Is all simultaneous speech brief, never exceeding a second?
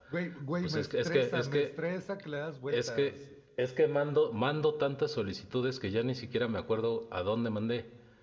No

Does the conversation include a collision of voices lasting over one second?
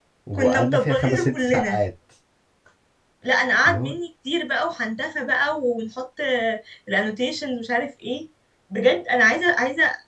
Yes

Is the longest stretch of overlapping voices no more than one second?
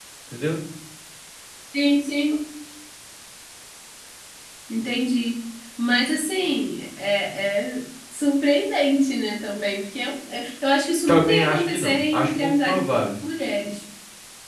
No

